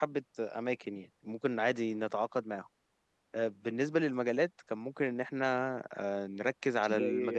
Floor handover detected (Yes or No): No